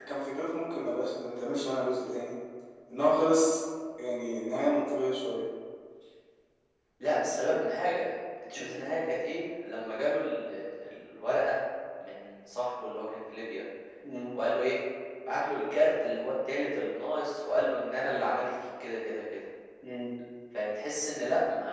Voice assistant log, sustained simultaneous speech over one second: none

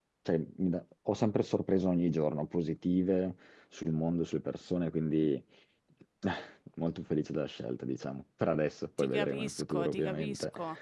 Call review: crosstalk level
present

